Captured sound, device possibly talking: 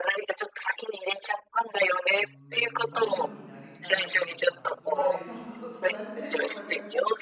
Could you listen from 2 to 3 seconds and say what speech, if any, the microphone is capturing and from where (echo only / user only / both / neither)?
both